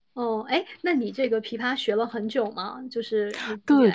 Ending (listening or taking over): taking over